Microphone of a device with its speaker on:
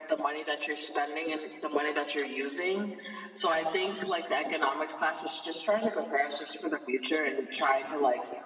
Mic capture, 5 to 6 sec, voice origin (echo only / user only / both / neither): echo only